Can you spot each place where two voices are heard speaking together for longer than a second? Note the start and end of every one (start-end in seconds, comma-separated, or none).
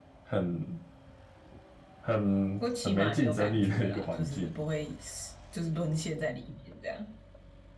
2.6-4.5